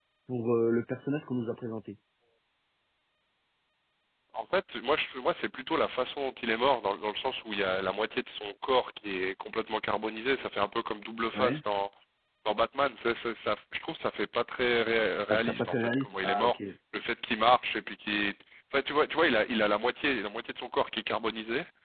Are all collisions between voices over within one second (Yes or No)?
No